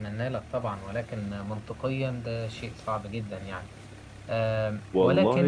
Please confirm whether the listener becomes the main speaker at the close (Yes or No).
Yes